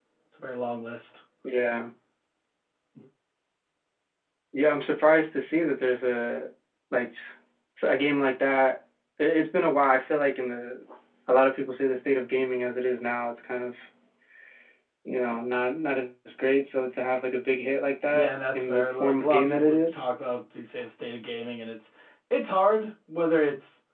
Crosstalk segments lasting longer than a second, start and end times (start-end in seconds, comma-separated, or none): 18.1-20.0